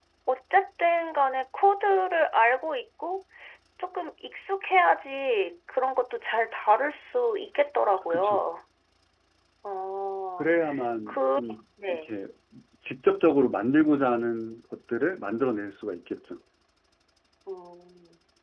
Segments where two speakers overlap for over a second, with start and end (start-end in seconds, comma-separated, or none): none